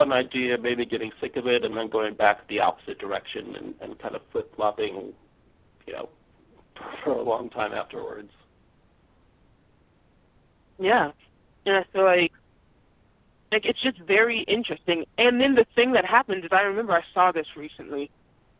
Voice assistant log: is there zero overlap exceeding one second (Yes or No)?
Yes